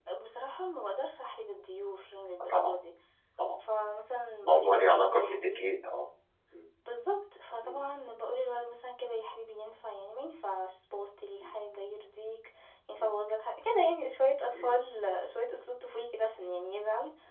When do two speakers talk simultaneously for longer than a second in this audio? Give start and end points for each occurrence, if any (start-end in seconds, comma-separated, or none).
4.4-5.6